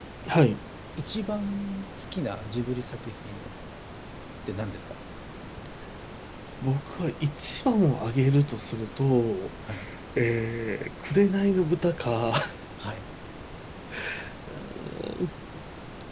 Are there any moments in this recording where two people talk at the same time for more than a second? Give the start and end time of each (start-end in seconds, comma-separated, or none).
none